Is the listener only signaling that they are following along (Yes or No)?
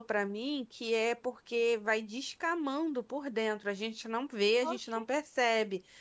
Yes